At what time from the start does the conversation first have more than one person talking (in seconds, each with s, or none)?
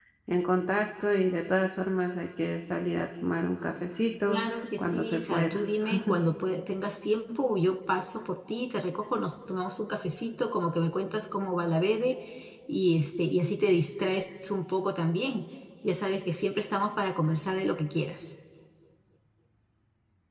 4.3 s